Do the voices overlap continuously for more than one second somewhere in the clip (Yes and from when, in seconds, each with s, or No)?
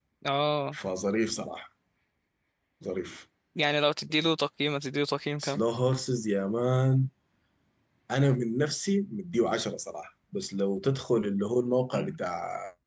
No